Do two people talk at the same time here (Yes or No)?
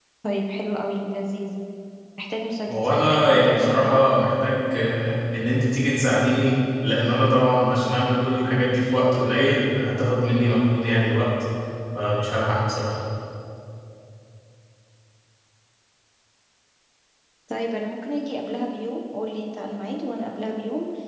Yes